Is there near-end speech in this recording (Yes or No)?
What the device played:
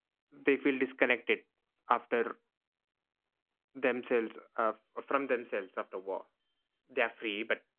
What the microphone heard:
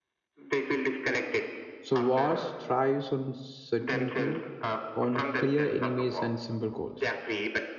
Yes